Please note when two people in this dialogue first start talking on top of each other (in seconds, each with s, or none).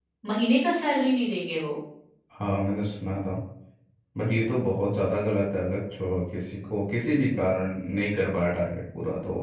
none